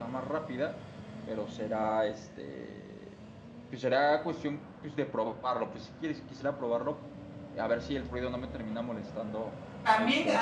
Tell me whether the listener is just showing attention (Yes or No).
No